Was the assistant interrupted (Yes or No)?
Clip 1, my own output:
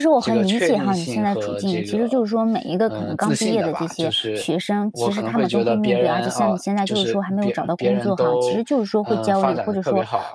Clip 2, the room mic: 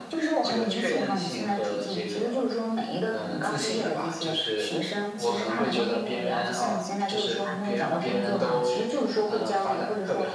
No